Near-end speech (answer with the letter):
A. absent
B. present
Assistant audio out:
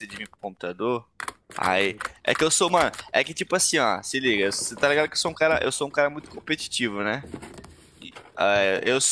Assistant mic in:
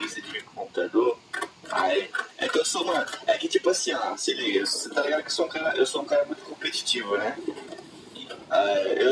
A